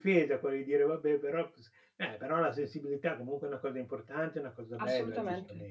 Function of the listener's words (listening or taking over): taking over